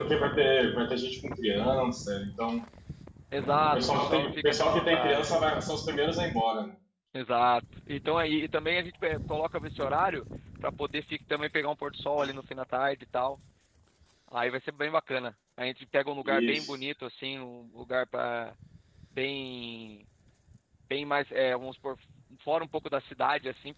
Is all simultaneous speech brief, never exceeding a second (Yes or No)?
No